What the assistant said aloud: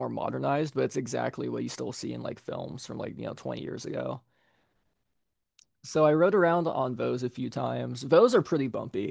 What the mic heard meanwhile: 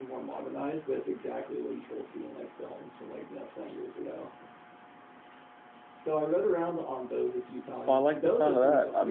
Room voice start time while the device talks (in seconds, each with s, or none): 7.8 s